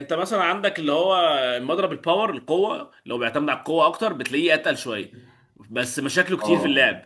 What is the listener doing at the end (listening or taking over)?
listening